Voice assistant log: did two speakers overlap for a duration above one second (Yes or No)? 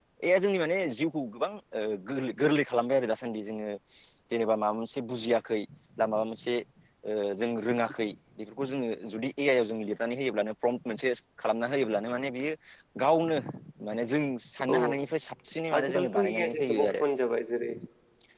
Yes